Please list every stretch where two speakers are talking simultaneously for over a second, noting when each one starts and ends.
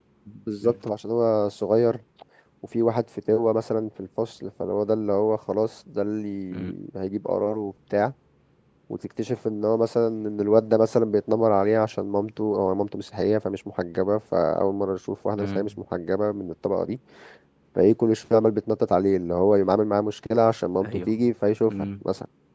none

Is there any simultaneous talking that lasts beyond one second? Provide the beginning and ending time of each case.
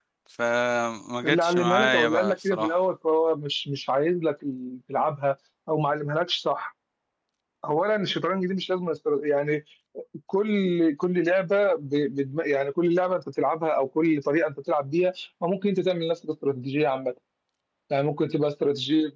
1.2-2.8

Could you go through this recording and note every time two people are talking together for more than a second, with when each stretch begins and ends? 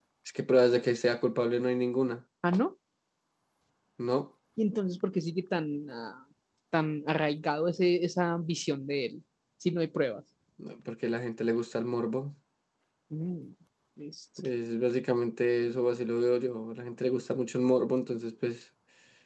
none

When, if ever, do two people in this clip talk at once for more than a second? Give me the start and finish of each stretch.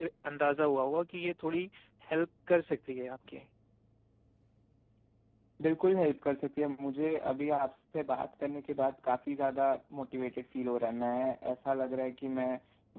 none

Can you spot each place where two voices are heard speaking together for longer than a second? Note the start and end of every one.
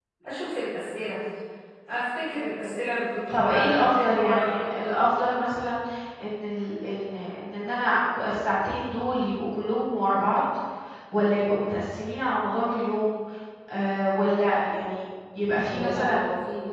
3.3-5.0

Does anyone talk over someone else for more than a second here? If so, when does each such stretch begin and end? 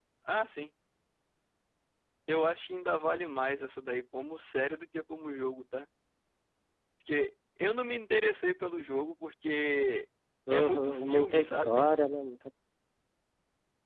10.5-11.8

